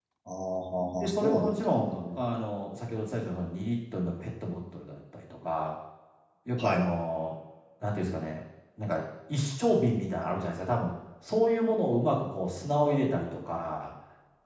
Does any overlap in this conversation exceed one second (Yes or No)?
Yes